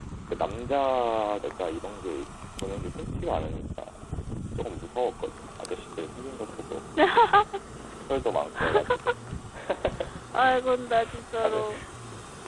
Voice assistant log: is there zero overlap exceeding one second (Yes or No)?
Yes